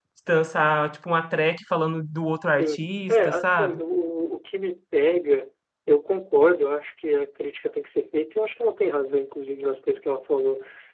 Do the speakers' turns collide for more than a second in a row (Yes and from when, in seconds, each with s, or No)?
Yes, from 2.6 s